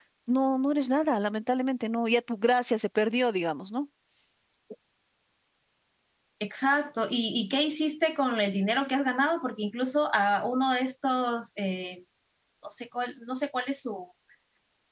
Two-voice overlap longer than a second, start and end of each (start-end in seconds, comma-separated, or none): none